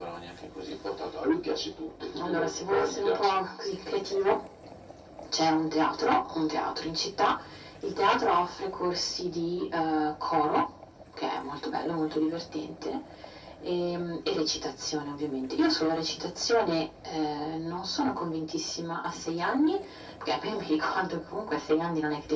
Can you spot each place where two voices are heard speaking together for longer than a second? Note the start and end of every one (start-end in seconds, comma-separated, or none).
2.2-3.4